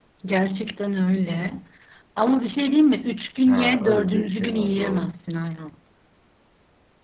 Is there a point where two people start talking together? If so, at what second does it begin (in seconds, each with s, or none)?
3.5 s